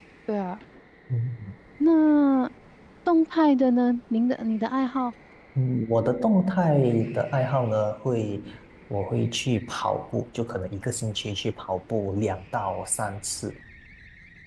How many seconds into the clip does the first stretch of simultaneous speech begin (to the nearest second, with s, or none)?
none